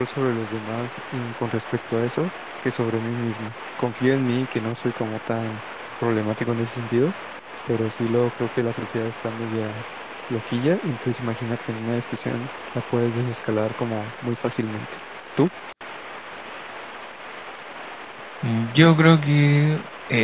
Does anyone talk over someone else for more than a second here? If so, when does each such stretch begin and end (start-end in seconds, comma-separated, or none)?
none